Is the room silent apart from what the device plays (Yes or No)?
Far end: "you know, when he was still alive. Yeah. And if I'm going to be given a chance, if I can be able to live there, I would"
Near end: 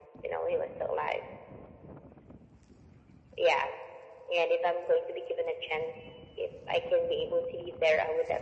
Yes